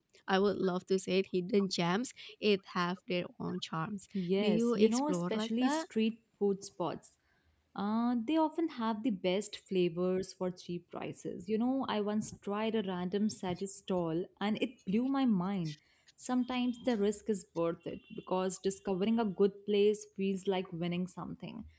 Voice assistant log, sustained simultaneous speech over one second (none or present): present